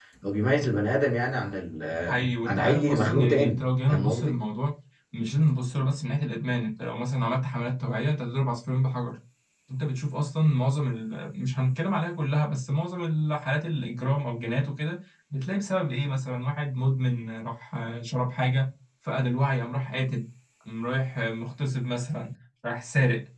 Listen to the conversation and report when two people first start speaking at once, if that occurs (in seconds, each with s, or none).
2.1 s